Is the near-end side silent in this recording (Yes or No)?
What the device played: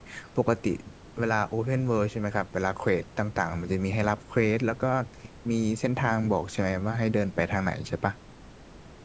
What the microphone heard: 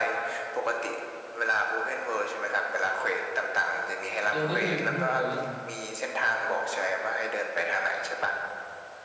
No